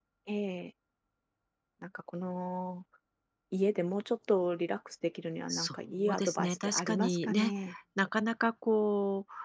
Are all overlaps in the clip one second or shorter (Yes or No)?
No